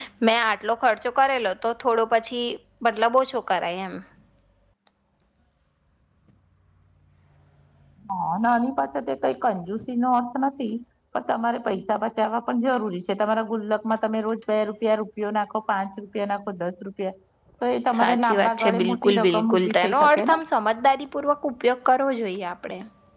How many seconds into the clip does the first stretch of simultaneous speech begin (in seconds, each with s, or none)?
17.9 s